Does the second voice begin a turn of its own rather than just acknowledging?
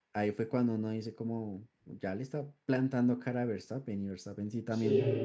Yes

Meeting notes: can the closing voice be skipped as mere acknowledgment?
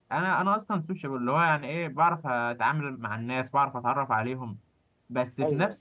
Yes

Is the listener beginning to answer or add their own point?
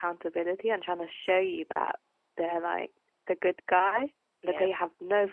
No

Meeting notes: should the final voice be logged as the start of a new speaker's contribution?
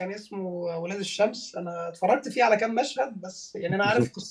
No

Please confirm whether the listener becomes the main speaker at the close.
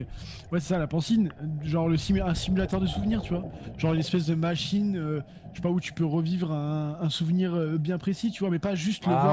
No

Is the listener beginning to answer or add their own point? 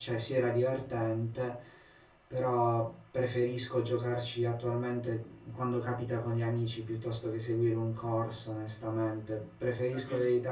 No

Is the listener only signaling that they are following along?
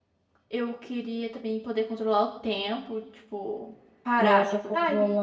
No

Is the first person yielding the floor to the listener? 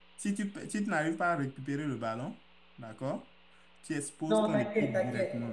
Yes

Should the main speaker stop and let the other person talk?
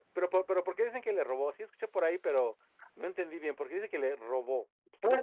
Yes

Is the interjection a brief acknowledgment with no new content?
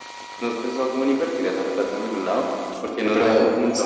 Yes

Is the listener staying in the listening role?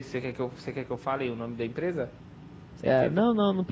No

